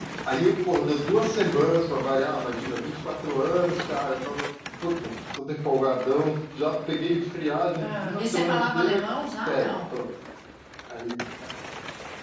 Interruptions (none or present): present